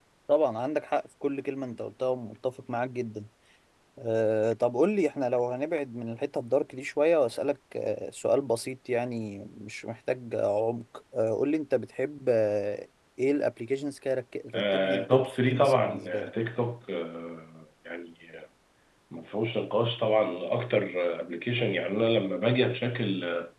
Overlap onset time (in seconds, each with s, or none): 14.5 s